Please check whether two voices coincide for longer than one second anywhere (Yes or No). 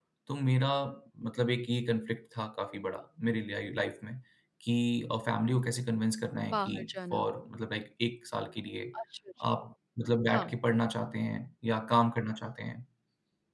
No